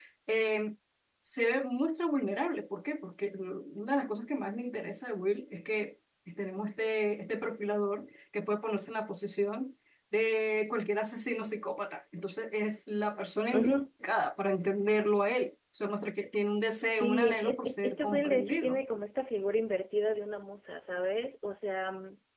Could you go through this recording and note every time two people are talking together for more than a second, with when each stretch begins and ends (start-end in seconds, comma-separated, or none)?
16.9-18.8